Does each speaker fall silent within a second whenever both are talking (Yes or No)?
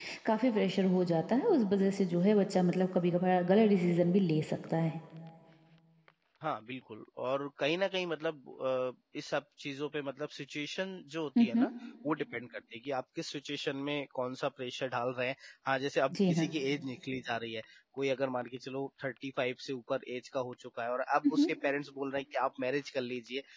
Yes